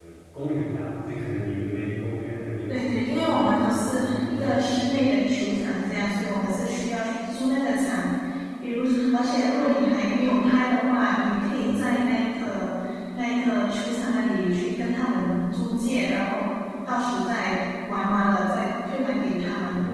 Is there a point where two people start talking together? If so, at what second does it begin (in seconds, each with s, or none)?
2.7 s